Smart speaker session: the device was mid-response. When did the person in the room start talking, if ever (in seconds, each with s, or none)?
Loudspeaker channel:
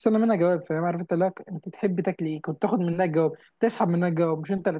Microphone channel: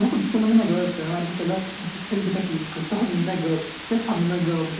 none